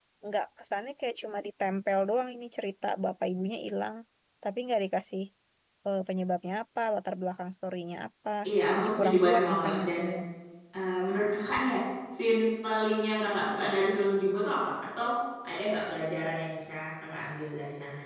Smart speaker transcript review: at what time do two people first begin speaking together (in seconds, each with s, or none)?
8.8 s